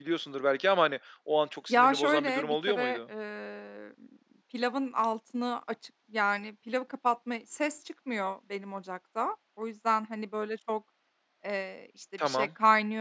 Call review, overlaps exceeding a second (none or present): present